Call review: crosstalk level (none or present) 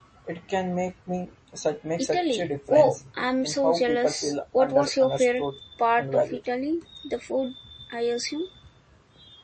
present